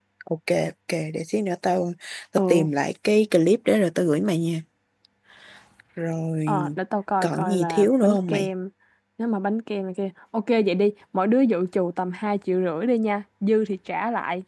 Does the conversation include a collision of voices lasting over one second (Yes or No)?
Yes